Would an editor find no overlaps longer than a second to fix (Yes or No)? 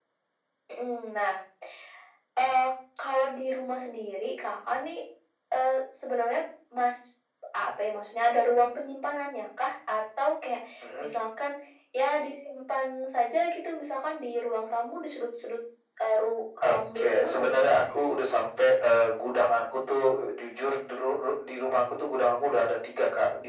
No